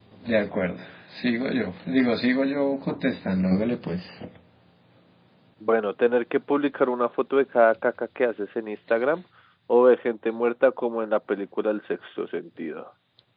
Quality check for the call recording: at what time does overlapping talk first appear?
none

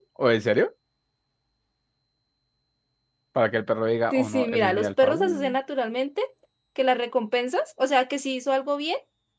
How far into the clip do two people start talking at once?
4.1 s

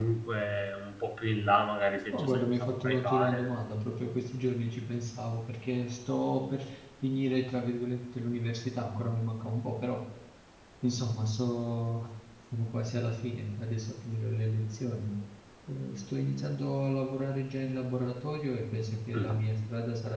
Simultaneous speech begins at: 2.0 s

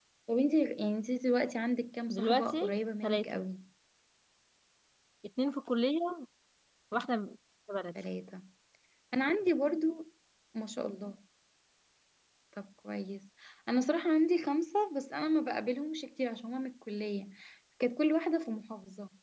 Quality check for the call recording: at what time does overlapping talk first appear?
2.1 s

